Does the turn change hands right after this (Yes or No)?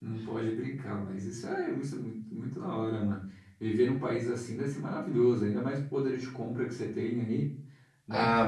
Yes